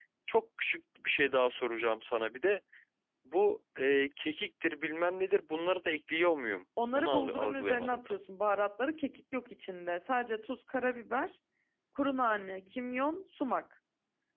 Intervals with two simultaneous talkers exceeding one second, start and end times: 6.9-8.2

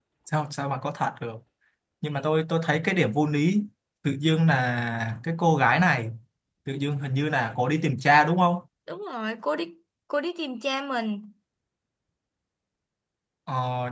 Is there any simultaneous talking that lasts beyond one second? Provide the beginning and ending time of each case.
none

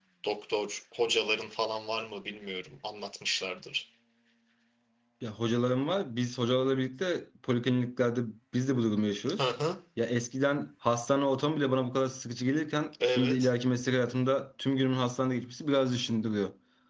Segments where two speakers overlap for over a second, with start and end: none

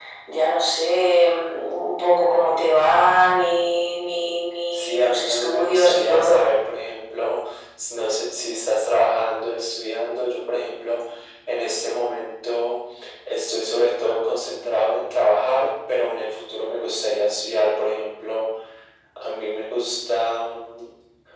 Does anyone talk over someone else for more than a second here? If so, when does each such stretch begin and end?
4.7-6.5

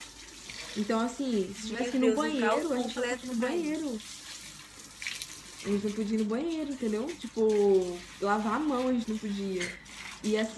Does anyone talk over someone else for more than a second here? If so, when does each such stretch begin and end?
1.6-3.7

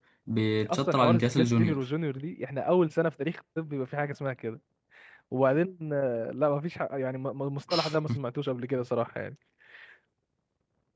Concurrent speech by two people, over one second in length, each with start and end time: 0.6-1.8

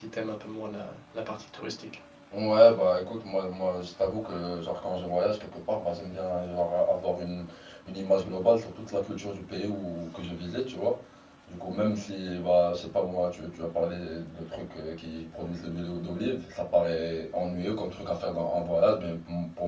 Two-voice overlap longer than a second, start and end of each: none

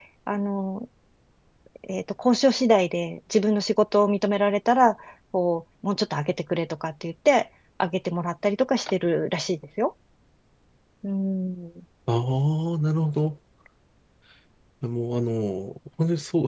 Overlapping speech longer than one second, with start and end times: none

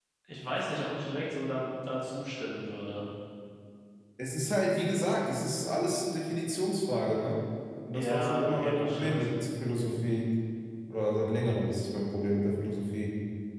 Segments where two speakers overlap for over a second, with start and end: 7.9-9.3

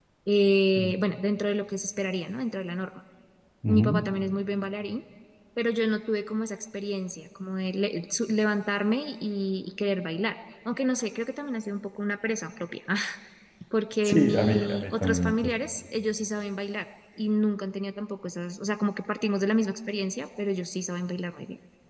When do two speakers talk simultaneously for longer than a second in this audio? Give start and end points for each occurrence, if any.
14.0-15.5

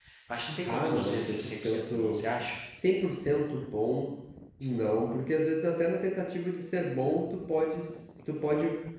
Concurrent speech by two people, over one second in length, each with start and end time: 0.7-2.2

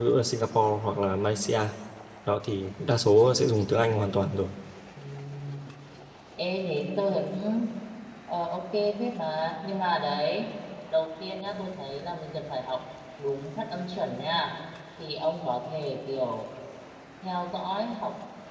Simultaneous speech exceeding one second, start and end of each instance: none

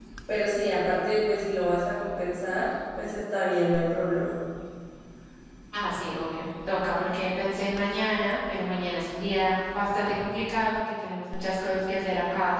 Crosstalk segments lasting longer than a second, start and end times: none

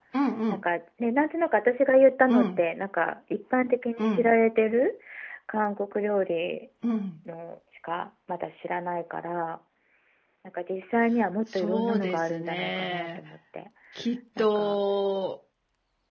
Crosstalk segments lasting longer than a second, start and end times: 11.5-13.2

